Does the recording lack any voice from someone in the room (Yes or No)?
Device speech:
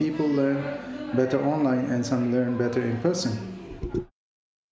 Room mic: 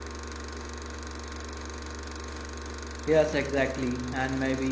No